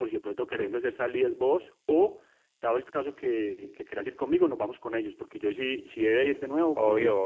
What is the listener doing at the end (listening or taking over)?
taking over